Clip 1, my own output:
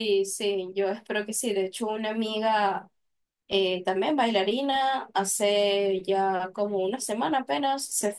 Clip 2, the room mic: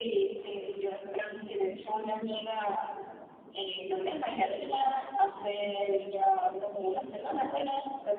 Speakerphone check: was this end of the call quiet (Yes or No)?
Yes